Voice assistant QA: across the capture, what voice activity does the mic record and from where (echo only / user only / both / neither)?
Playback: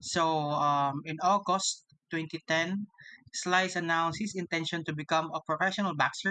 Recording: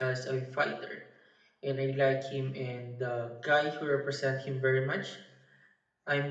user only